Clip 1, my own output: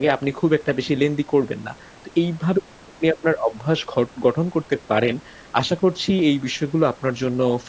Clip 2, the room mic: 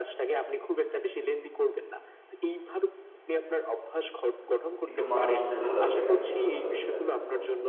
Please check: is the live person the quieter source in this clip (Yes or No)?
No